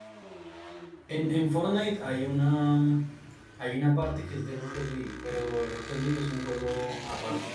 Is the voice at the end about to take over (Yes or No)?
Yes